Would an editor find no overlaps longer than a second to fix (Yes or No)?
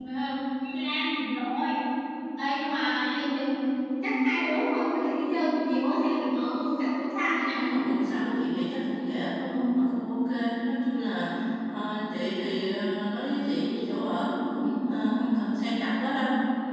Yes